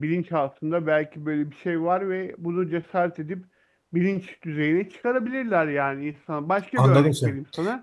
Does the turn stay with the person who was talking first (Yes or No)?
No